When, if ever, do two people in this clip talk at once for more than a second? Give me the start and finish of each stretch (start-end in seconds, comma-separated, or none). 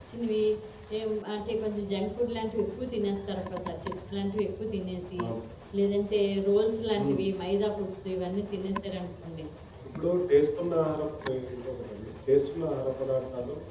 none